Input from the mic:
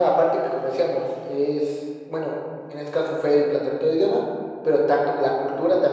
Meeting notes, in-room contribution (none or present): none